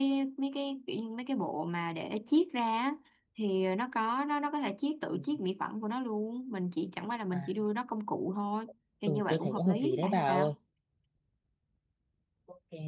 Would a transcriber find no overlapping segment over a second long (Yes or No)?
No